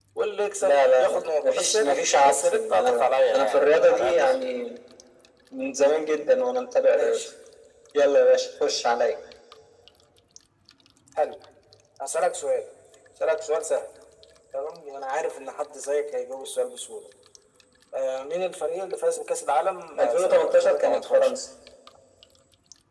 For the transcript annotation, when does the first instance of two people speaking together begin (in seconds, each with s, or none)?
0.6 s